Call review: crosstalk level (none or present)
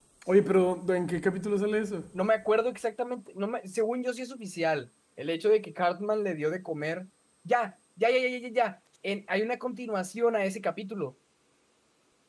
none